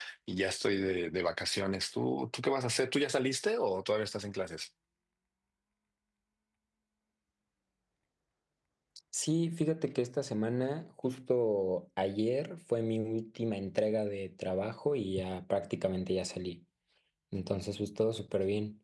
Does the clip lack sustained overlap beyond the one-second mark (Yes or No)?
Yes